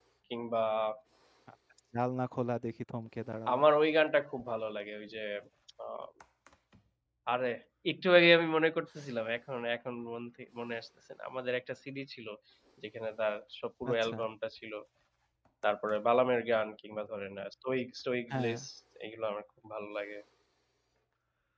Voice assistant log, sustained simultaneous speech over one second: none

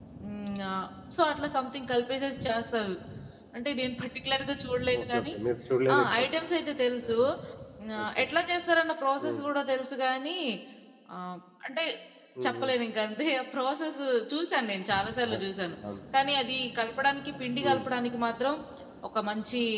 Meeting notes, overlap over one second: none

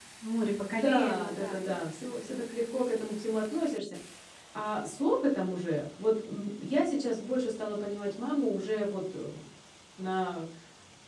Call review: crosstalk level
present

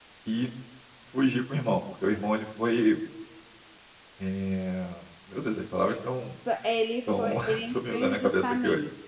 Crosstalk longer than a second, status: present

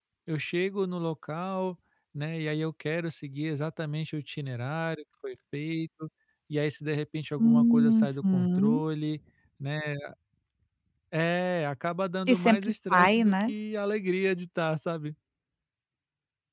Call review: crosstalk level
present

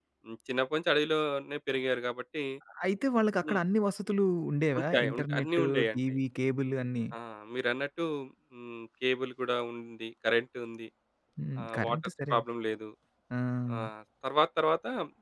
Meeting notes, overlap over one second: present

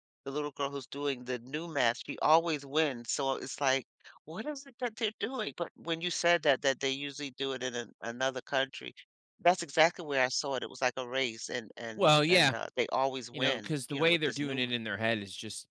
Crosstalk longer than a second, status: present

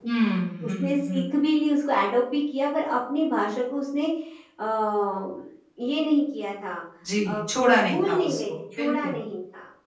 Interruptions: present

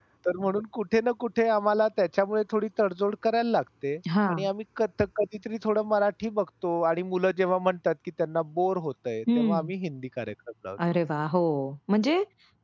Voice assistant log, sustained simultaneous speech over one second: none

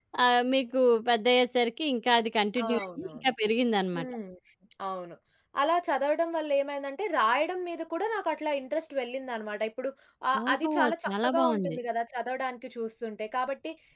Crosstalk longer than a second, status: present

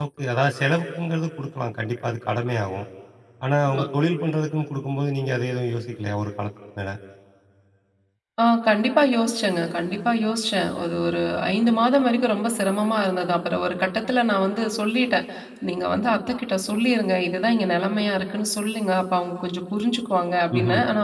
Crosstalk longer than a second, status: none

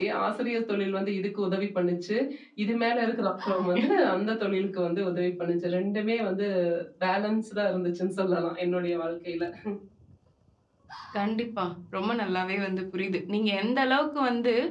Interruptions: none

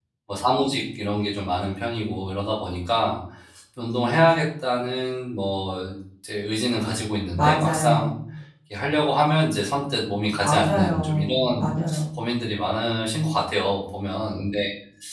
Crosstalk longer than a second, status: present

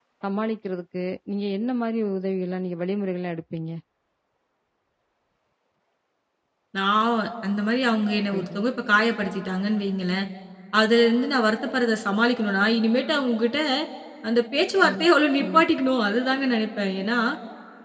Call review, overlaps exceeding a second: none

